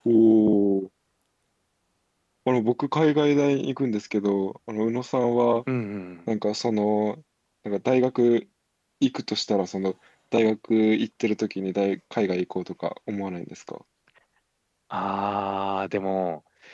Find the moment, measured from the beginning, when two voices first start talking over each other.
none

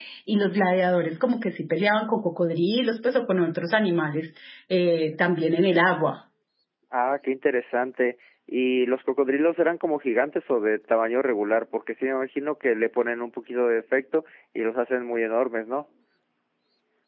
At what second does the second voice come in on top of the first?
none

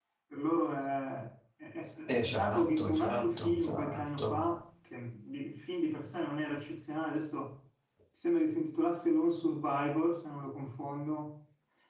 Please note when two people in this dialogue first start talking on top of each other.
2.3 s

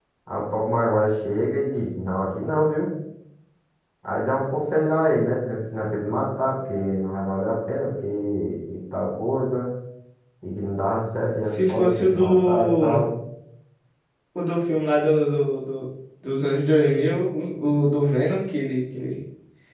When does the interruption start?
11.5 s

